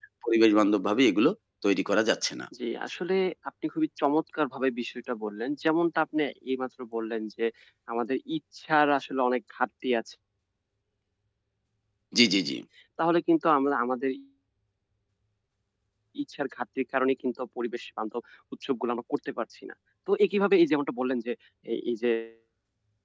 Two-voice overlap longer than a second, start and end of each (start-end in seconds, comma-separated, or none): none